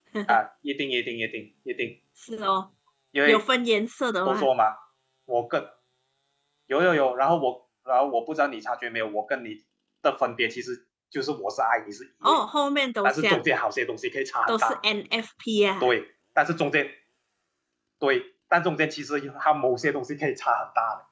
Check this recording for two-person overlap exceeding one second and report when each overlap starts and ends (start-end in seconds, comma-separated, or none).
none